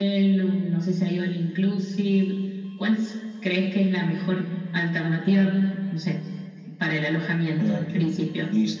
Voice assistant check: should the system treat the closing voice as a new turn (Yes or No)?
Yes